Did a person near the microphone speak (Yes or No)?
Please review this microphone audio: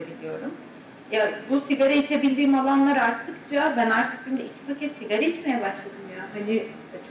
No